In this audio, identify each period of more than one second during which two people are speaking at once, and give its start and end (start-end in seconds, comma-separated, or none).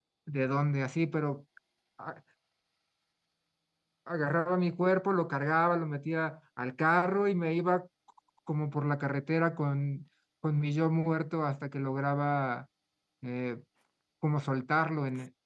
none